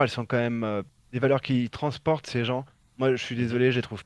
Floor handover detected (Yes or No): No